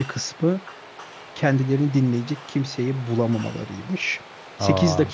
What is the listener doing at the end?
listening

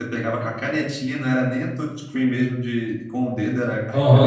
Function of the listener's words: taking over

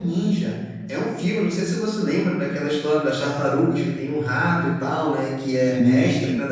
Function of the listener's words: listening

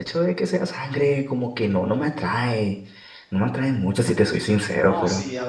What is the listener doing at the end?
taking over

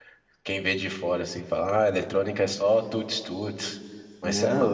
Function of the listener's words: listening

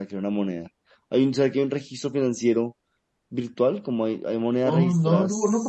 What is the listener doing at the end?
taking over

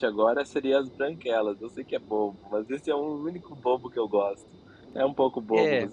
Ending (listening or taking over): taking over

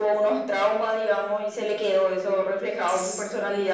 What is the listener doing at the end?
listening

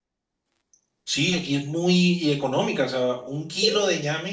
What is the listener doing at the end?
listening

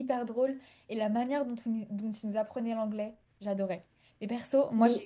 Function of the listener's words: listening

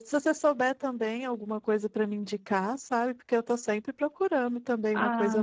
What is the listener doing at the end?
taking over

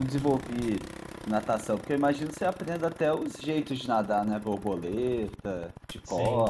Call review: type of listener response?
taking over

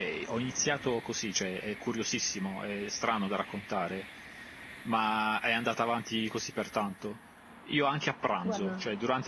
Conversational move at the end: listening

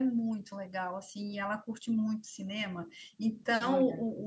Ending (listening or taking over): listening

